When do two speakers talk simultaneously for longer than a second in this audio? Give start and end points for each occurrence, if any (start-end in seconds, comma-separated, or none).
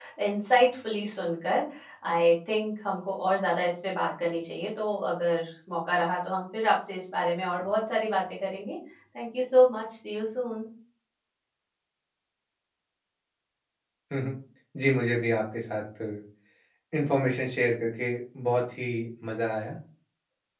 none